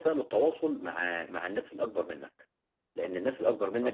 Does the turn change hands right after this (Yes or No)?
No